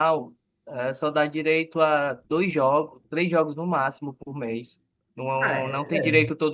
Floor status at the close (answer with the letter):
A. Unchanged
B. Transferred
A